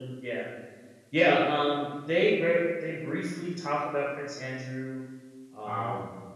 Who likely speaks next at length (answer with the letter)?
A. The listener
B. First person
B